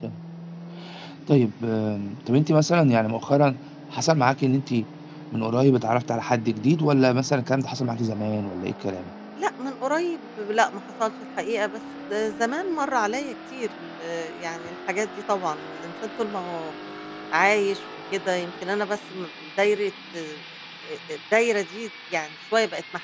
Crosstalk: none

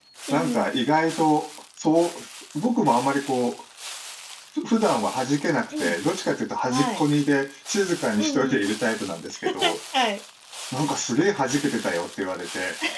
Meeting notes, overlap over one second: none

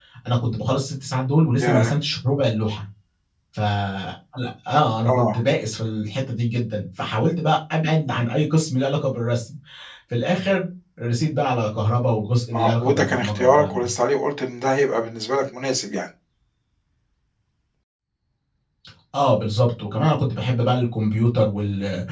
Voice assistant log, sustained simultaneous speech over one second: present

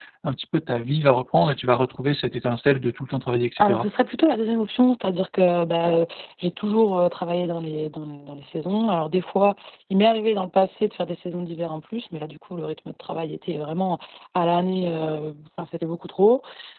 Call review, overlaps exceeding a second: none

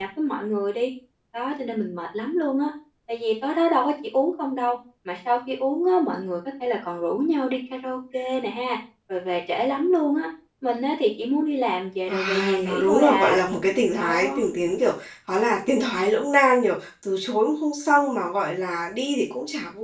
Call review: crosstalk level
present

